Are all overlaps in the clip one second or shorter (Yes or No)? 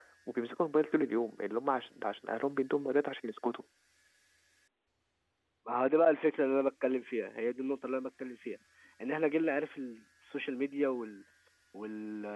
Yes